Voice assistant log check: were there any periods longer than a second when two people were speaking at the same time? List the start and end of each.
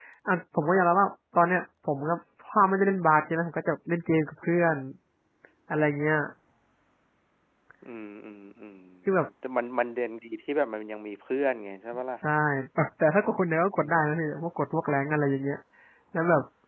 none

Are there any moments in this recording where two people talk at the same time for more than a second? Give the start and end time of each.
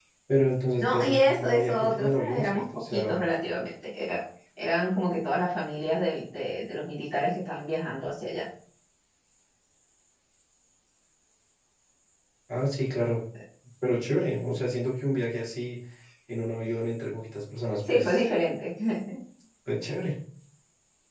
0.8-3.1

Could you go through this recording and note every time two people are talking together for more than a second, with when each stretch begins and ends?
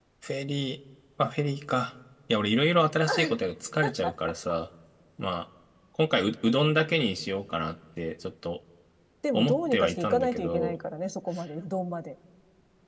9.3-10.8

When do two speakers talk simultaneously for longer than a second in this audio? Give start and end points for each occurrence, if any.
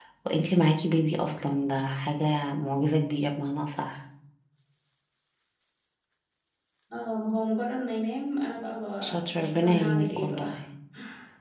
9.0-10.5

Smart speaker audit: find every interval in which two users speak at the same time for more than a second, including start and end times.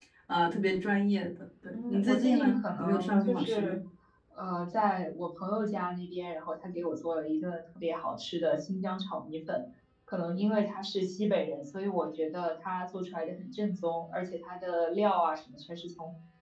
1.7-3.8

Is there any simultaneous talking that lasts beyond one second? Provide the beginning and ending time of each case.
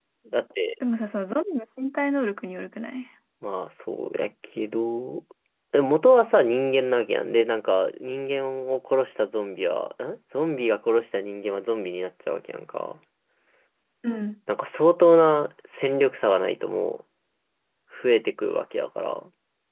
none

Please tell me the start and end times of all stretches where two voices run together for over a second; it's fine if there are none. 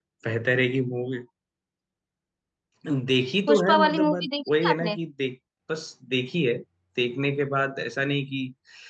3.5-5.0

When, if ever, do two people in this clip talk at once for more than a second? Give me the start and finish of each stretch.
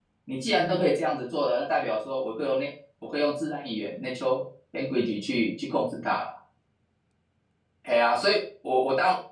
none

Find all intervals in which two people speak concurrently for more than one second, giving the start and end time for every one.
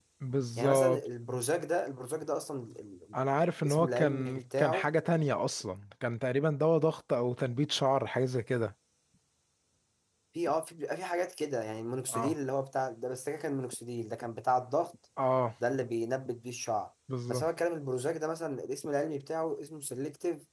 3.6-4.9

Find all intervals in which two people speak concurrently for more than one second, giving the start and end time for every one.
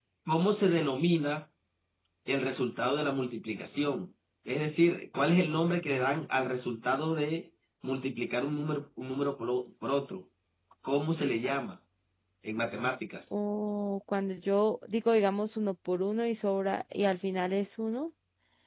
none

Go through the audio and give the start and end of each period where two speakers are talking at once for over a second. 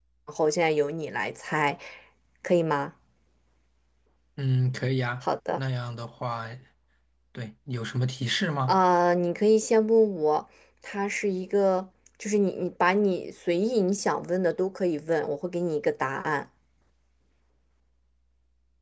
none

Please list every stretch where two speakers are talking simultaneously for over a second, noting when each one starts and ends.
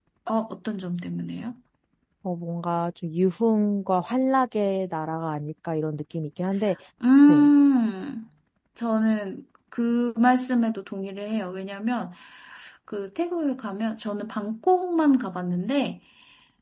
none

